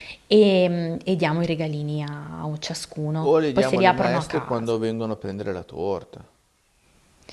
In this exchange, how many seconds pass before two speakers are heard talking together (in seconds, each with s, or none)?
3.2 s